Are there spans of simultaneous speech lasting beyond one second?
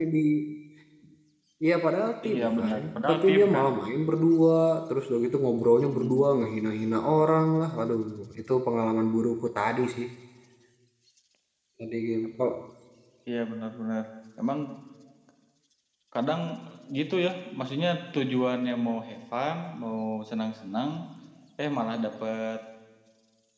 Yes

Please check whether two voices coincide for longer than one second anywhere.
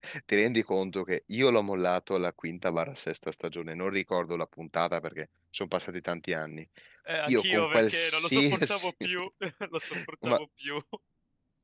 Yes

